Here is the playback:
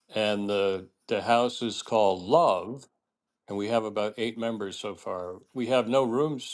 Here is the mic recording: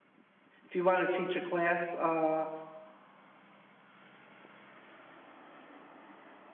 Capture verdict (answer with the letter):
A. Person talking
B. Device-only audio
A